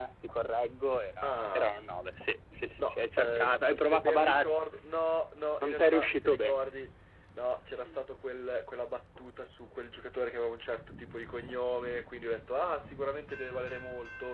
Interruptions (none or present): present